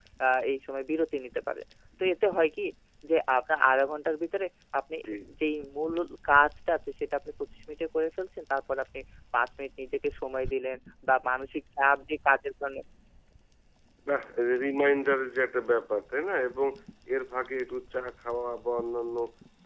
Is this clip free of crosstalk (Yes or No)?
Yes